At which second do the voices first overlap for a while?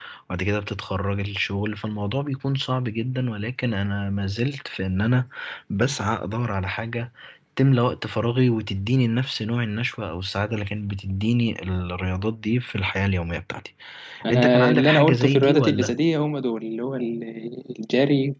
14.3 s

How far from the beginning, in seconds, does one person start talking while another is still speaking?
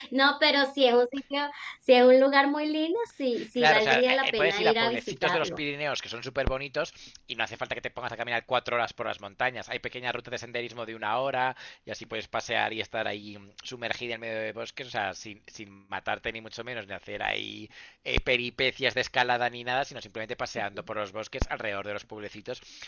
3.3 s

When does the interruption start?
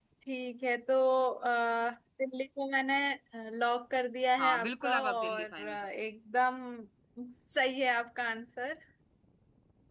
4.4 s

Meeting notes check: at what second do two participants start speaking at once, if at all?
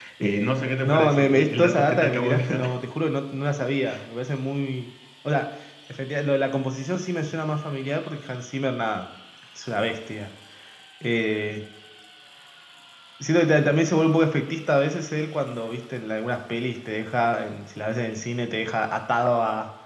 0.8 s

